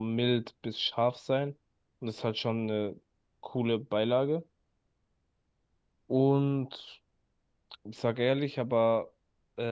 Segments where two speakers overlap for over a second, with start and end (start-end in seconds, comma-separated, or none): none